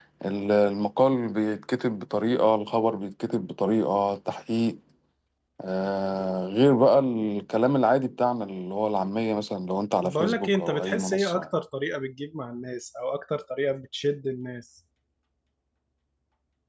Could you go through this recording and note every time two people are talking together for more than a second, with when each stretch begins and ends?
10.0-11.4

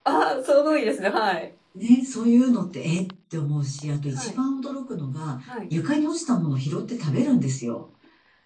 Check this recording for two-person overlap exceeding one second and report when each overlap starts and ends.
none

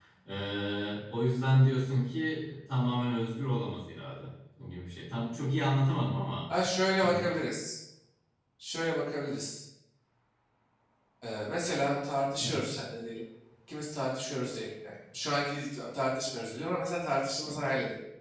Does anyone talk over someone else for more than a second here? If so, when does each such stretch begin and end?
none

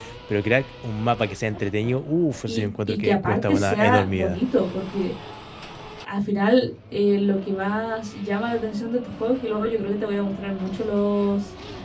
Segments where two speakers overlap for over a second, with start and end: 2.5-4.4

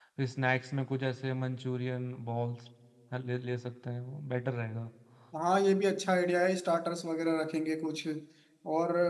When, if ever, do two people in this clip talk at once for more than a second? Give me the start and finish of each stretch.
none

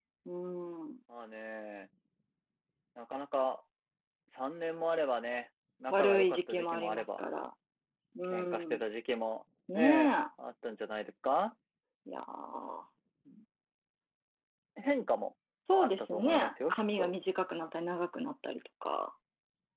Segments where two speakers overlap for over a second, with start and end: 5.9-7.2, 15.8-17.1

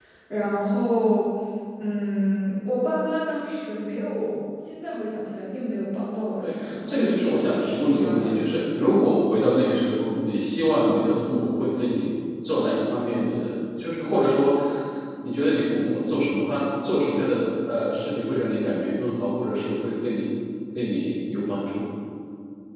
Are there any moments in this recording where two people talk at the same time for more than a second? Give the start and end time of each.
6.4-8.6

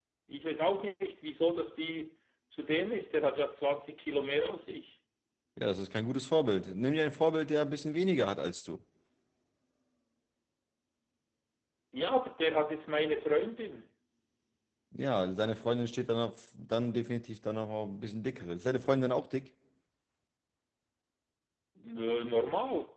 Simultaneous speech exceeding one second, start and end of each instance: none

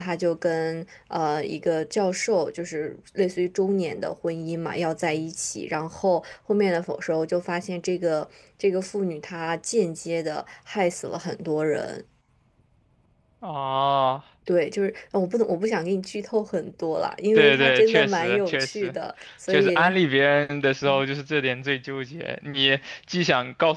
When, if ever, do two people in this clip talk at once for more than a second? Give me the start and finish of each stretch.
17.4-18.9

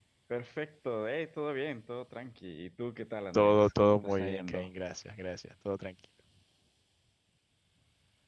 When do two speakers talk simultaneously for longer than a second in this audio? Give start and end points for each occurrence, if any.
3.3-4.7

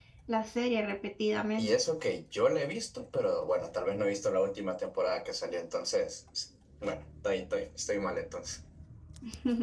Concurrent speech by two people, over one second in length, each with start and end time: none

